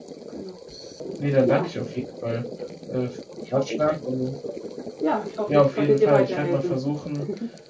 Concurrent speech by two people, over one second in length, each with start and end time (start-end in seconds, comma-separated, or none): 5.5-6.8